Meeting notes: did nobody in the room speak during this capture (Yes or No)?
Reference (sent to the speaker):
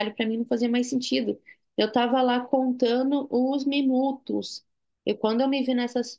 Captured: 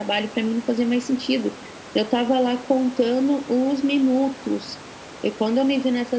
Yes